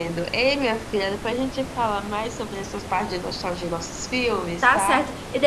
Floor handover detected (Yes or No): Yes